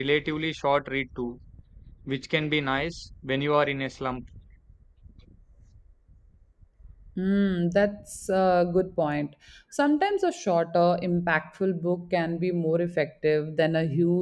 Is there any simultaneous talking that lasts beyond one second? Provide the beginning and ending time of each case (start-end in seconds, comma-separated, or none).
none